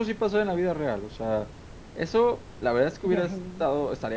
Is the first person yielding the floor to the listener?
No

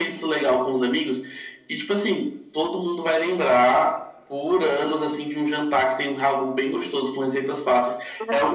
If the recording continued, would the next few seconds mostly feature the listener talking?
Yes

